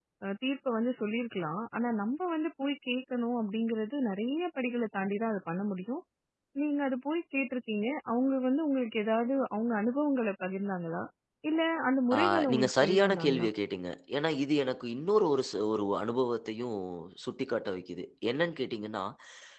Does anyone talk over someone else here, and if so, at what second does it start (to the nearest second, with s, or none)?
12 s